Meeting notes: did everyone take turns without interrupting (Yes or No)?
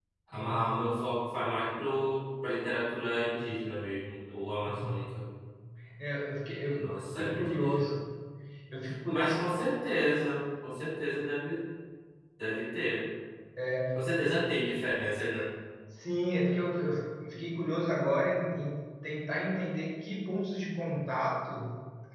No